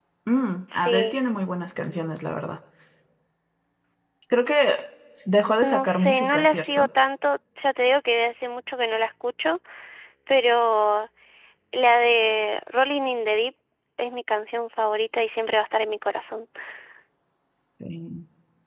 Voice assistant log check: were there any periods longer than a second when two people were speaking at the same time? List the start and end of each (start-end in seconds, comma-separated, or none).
5.6-6.9